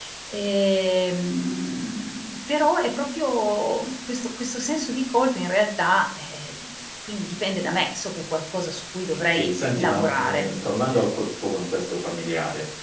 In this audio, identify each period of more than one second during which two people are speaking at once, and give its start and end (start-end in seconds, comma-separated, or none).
9.2-10.5